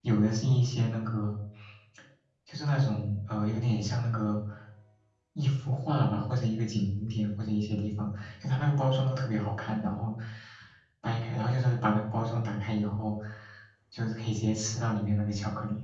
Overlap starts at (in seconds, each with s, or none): none